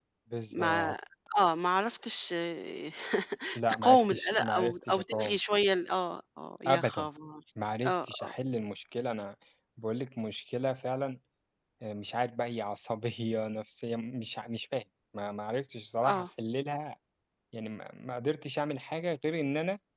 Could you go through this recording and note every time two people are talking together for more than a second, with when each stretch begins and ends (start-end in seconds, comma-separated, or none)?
3.8-5.4